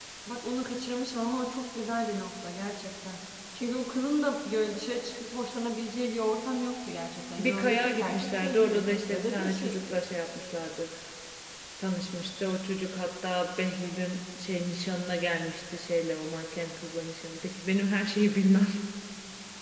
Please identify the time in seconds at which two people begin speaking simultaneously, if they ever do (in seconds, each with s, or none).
7.4 s